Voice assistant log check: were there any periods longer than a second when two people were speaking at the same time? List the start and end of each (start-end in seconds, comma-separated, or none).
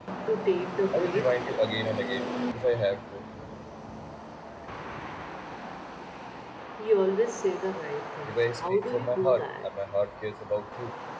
8.3-9.7